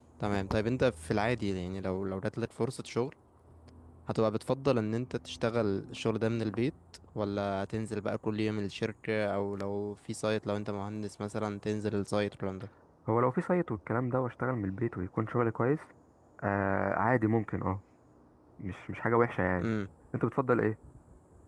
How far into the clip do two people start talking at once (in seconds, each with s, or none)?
none